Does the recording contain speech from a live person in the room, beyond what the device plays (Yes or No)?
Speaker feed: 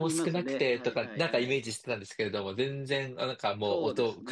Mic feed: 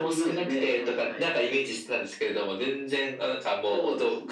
No